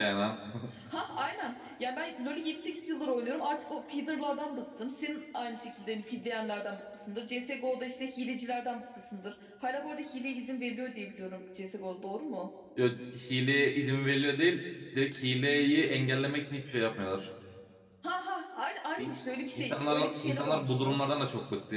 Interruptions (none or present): present